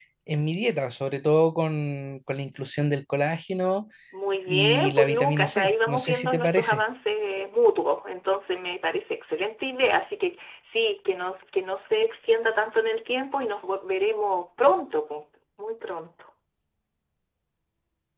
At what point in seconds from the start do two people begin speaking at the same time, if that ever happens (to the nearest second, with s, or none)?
4 s